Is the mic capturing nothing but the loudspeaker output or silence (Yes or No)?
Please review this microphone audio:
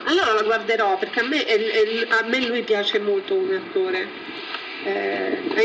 Yes